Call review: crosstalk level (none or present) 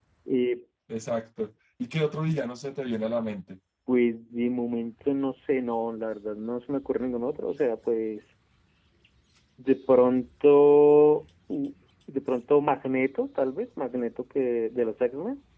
none